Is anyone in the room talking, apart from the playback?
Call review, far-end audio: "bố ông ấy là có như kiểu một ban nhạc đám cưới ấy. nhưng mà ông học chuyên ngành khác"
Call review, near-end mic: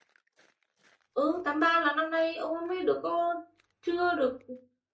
Yes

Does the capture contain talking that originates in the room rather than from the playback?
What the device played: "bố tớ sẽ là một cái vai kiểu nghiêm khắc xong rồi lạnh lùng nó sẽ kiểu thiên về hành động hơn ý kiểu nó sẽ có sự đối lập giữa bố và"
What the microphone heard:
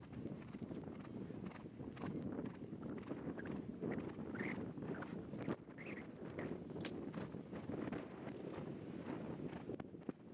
No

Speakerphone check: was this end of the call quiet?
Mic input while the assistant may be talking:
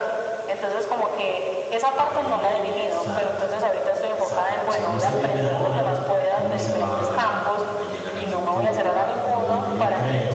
No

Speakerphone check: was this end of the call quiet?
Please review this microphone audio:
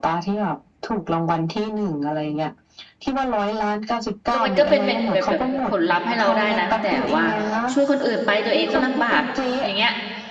No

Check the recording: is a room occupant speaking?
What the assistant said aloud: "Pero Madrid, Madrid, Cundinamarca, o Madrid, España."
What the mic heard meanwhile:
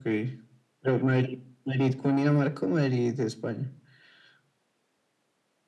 No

